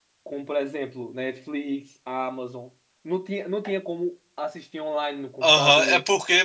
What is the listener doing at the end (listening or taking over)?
taking over